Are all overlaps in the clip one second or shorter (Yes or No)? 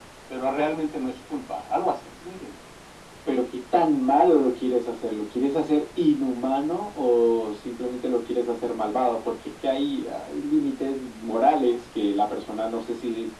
Yes